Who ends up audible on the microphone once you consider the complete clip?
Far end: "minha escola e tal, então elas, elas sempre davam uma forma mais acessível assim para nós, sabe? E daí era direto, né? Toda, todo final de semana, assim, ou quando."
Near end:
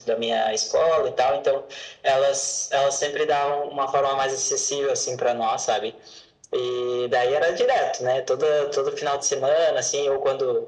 echo only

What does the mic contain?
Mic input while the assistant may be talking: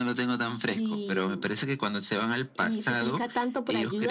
echo only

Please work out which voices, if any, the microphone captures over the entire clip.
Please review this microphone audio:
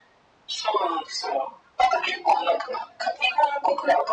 echo only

